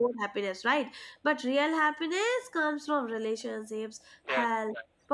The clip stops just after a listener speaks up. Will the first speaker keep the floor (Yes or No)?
Yes